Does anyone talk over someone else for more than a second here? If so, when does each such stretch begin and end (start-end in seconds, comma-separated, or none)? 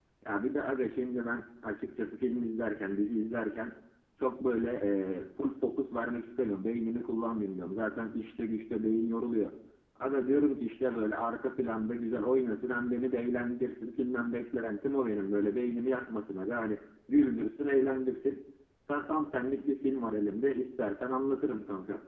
none